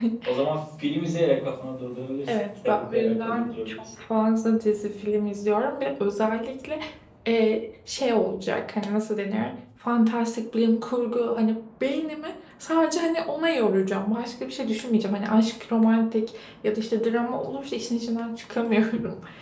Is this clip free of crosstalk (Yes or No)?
No